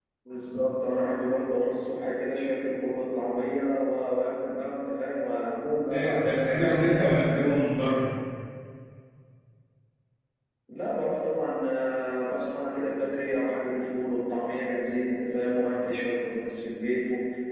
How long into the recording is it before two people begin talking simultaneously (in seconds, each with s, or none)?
5.9 s